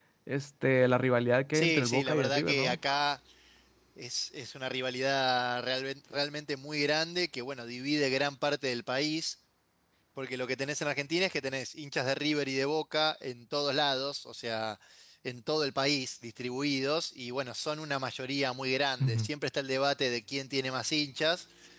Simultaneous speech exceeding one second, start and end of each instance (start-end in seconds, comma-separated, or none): 1.5-2.8